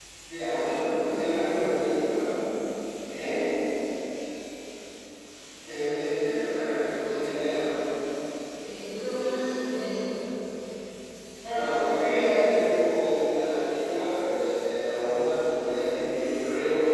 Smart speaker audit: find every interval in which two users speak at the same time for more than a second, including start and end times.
0.7-2.2

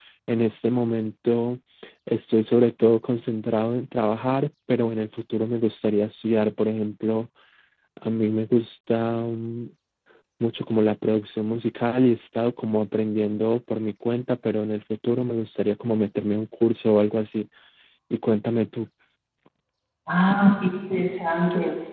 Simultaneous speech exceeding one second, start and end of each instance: none

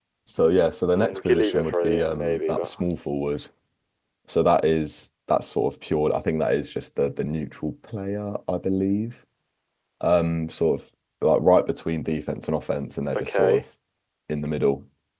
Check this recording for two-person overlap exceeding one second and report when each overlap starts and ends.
1.0-2.8

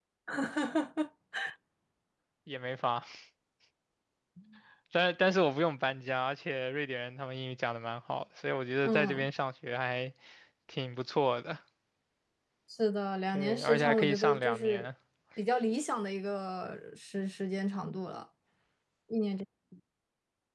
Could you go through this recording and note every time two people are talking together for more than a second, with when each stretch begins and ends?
13.3-14.9

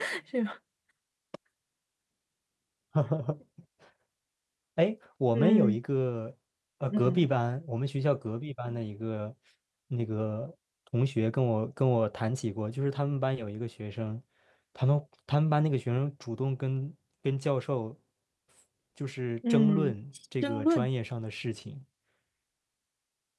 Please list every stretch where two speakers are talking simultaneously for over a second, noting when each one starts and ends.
none

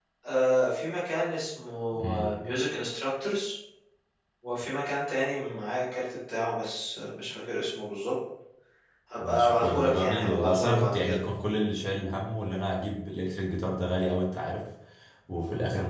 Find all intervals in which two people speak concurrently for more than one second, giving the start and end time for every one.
9.2-11.2

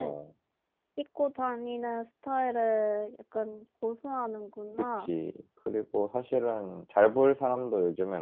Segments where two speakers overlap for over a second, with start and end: none

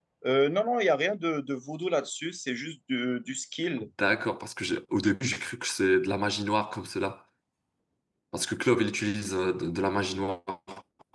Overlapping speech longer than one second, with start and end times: none

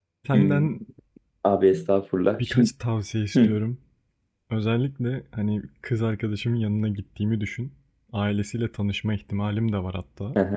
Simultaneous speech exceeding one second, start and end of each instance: none

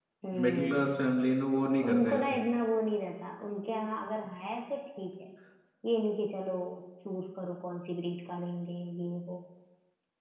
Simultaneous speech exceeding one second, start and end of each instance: none

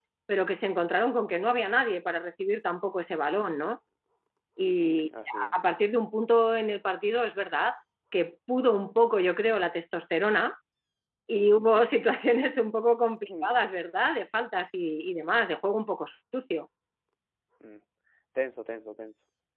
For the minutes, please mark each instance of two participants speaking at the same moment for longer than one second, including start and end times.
none

